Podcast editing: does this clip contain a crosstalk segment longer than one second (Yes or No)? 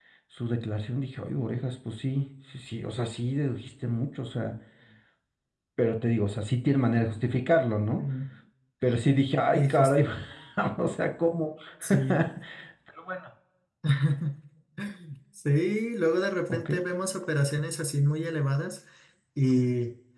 No